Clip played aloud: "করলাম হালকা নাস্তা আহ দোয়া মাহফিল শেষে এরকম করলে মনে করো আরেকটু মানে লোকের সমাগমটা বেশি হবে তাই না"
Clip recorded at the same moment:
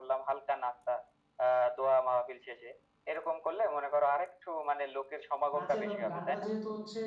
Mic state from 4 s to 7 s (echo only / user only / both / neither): both